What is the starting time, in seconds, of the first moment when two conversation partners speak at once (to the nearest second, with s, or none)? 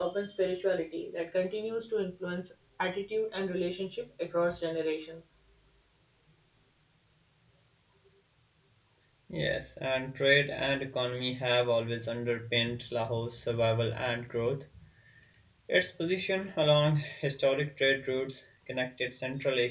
none